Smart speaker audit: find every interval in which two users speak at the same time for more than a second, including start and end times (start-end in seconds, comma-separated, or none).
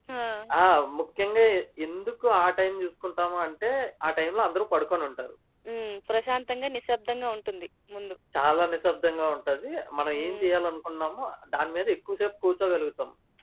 none